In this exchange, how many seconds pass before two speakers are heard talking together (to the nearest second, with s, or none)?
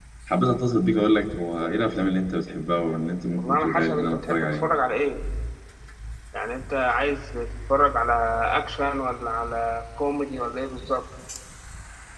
3 s